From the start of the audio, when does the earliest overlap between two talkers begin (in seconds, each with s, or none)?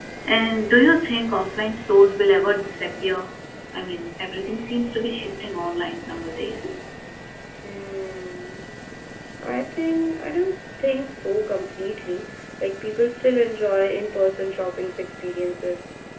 none